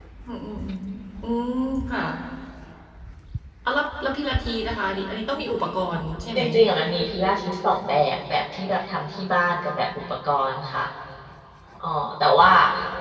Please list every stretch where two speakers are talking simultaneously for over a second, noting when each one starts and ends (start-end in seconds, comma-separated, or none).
none